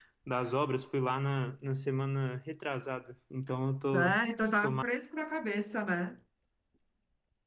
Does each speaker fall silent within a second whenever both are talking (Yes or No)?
Yes